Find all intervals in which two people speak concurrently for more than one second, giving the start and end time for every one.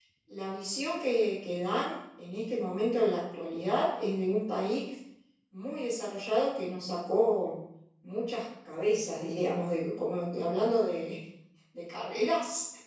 none

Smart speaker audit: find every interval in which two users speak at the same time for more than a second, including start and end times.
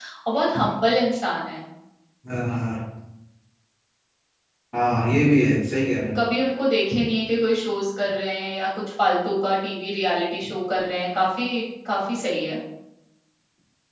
none

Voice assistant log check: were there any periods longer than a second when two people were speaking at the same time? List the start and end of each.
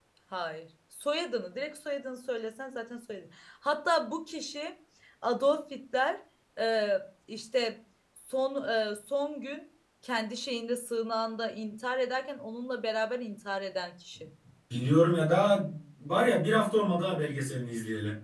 none

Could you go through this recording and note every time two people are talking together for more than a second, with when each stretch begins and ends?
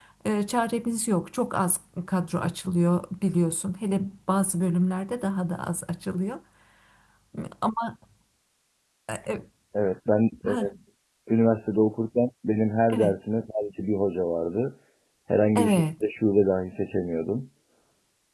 none

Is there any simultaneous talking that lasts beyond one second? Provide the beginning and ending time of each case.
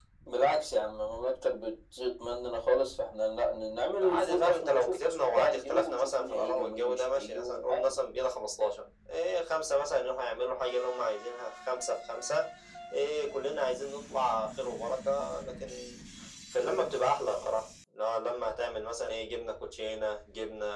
4.0-8.0

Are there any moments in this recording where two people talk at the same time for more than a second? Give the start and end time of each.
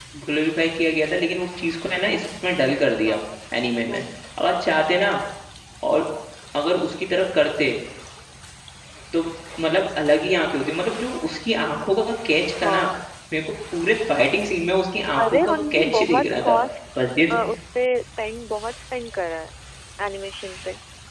15.2-16.6

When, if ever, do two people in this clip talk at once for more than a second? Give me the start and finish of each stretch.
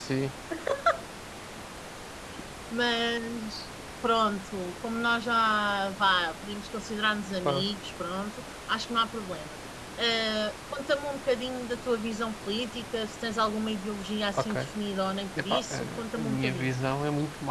15.4-16.7

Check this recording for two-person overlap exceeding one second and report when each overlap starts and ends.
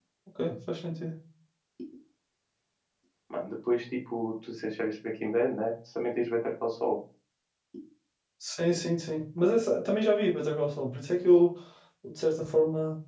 none

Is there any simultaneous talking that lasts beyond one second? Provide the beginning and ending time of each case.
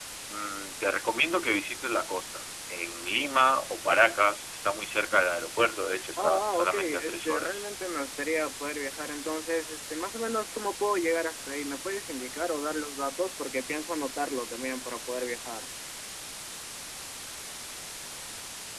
6.2-7.6

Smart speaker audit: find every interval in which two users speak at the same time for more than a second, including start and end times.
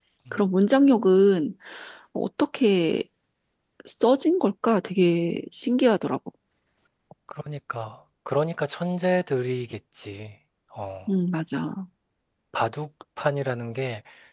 none

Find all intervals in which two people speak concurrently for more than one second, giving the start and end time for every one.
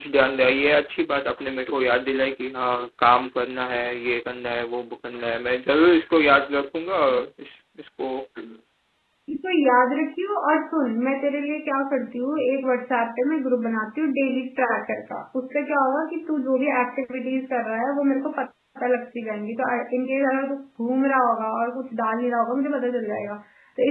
none

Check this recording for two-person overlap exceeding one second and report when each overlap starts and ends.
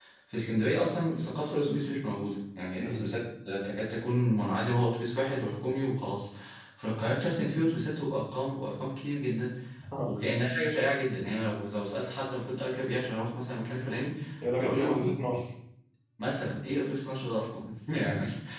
none

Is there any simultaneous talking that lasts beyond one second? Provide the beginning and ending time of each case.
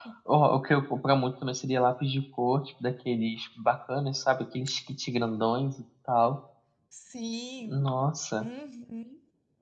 none

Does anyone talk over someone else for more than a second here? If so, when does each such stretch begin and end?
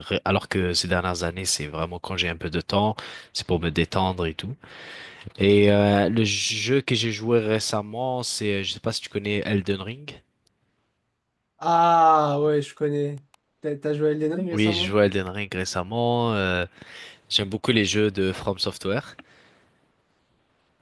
none

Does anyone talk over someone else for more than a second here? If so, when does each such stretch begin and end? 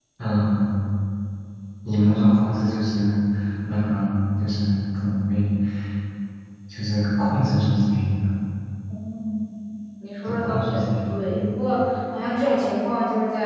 10.3-11.5

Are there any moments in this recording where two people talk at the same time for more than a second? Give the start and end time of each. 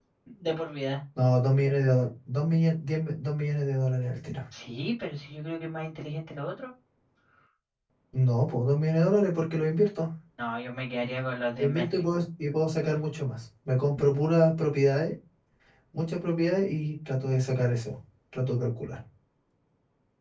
none

